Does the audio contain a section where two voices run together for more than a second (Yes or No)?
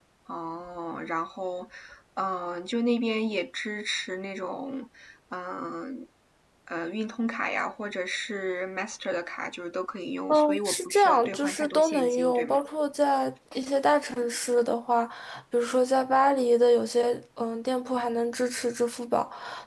Yes